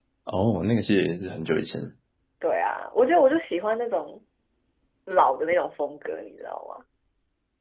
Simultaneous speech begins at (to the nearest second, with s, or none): none